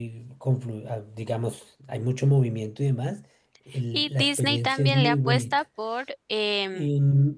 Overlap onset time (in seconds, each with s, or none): 3.9 s